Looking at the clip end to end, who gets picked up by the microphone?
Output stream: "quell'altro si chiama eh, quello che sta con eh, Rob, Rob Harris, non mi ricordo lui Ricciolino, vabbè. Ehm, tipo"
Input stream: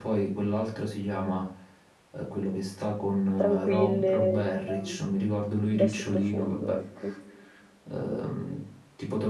both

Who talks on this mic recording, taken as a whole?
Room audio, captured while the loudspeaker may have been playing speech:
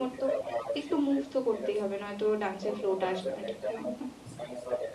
both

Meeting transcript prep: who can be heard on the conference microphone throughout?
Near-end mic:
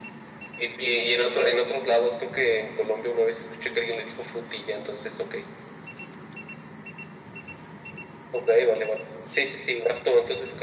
echo only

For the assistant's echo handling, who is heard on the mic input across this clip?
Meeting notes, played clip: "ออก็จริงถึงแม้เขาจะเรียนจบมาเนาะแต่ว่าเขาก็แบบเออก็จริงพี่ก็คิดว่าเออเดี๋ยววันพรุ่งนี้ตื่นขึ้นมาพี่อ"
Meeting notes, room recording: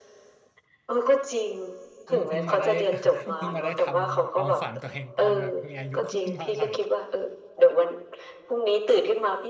both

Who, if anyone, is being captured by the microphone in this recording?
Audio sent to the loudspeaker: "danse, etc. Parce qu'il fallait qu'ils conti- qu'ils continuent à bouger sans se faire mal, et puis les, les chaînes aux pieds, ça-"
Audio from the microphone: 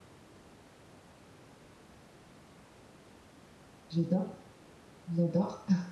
user only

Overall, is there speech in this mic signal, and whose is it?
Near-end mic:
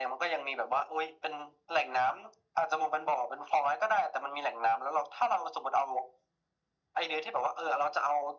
echo only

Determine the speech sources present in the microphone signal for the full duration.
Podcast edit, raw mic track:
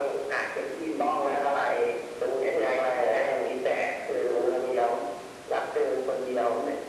echo only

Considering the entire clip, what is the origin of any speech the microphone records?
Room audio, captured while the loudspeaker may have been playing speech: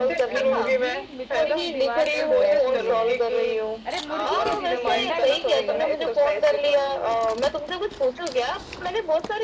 both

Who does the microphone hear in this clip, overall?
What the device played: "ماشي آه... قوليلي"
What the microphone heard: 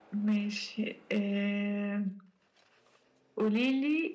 echo only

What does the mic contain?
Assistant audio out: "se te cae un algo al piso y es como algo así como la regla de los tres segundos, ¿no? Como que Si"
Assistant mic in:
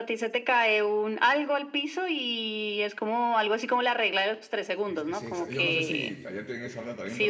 both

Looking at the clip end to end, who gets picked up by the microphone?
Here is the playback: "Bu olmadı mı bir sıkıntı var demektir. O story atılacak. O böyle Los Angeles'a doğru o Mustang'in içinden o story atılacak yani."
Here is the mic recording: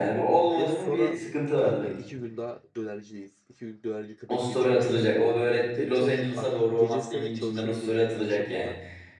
both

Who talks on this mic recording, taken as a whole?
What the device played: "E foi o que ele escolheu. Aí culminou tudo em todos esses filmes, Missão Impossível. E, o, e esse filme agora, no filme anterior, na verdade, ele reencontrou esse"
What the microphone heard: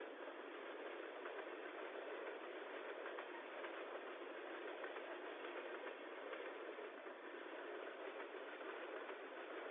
neither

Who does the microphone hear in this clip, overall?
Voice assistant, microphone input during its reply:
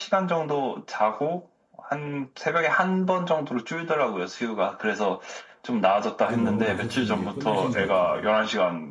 both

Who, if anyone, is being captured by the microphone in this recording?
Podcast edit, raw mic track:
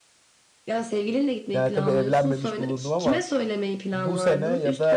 both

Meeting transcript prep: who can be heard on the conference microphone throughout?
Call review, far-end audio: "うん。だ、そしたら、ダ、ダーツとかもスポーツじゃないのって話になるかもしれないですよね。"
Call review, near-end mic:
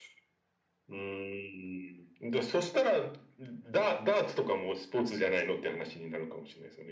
echo only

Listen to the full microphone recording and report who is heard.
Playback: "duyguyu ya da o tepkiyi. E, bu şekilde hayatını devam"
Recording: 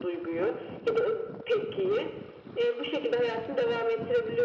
echo only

